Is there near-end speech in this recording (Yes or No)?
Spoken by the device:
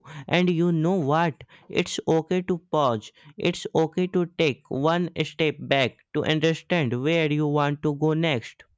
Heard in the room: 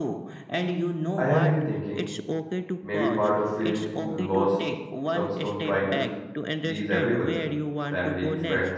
Yes